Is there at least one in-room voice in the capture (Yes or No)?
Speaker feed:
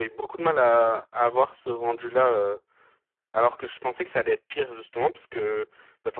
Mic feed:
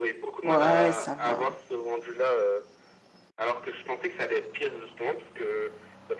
Yes